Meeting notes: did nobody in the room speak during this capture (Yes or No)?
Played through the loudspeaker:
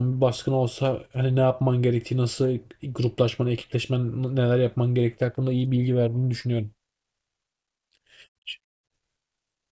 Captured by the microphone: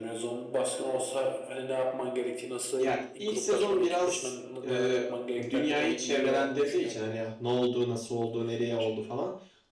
No